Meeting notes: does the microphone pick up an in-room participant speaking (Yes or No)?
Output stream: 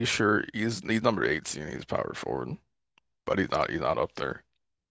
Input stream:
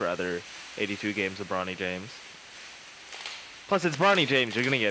Yes